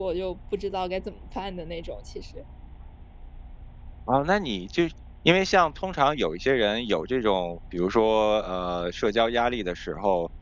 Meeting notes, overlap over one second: none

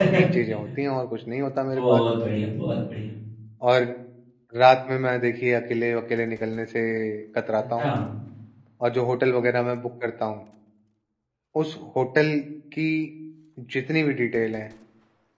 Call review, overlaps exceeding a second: none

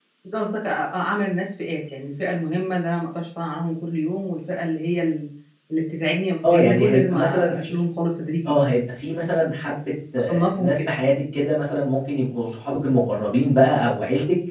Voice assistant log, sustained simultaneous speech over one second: present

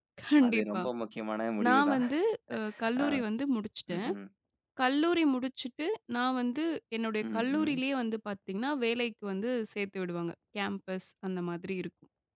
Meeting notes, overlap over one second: none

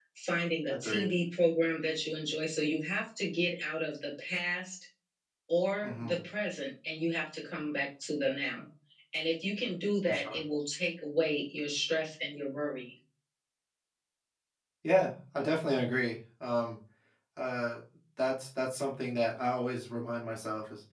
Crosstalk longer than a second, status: none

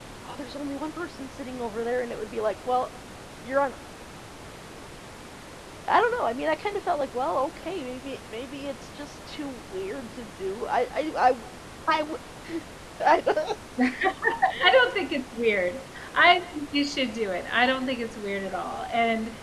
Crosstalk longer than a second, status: none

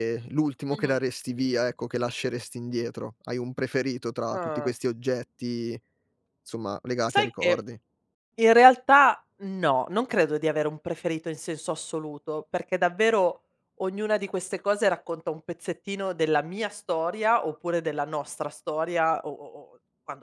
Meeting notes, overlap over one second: none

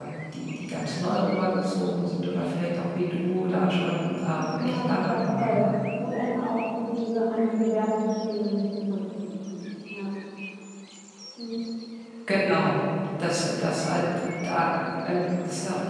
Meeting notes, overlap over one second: present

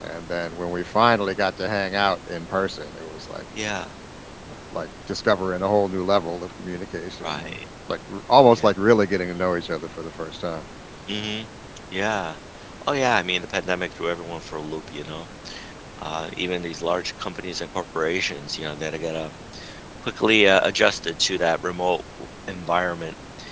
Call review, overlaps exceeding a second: none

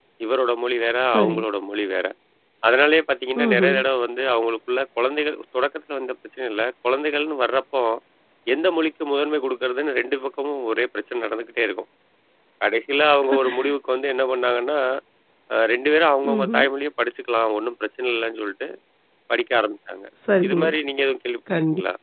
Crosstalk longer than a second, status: none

